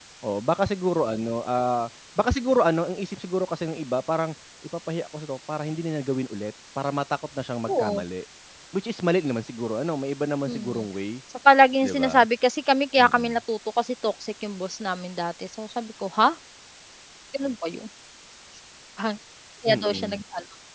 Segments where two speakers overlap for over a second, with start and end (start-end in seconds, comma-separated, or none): none